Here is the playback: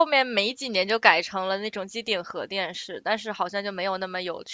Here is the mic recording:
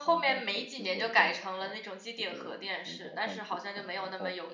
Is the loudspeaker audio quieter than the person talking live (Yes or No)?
No